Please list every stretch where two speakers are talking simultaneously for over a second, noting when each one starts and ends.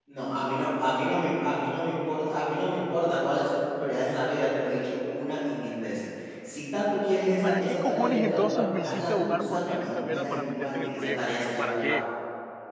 7.4-12.1

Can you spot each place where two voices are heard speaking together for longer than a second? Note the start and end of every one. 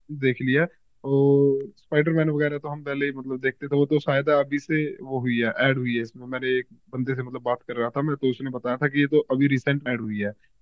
none

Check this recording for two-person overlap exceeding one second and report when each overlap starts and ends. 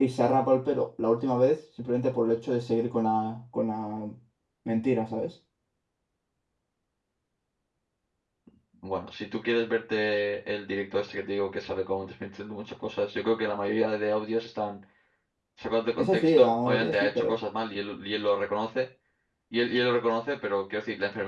16.0-17.4

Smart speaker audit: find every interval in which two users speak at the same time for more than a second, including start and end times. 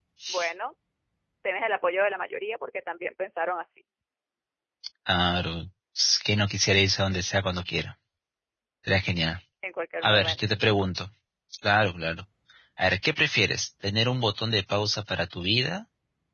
none

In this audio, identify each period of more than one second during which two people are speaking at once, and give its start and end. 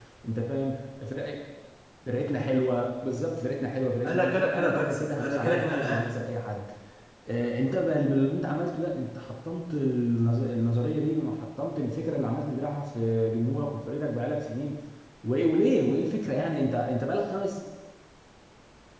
4.0-6.2

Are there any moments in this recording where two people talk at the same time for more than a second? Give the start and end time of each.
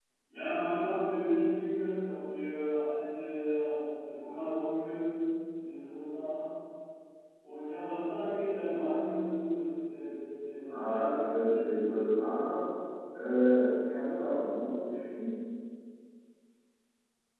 10.6-12.1

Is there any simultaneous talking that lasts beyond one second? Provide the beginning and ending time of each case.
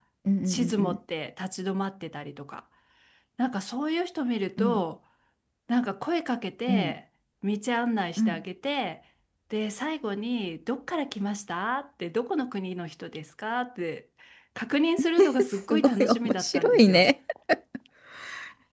15.2-17.0

